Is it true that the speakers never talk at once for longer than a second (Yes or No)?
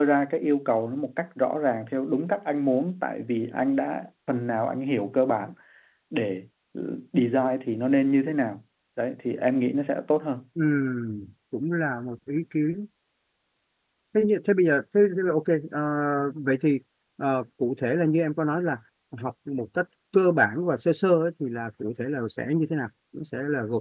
Yes